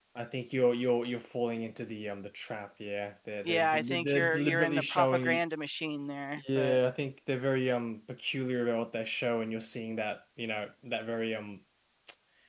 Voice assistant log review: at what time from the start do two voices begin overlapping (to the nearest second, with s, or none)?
3 s